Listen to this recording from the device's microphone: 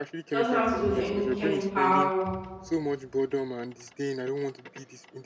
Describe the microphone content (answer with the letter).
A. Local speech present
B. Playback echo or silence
A